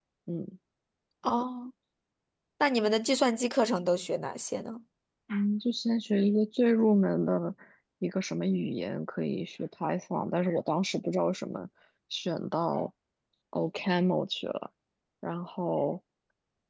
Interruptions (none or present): none